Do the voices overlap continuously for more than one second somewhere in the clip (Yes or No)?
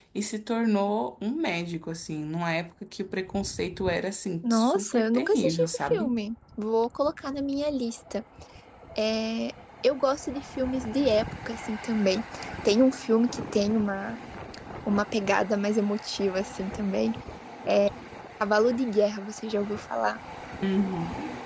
Yes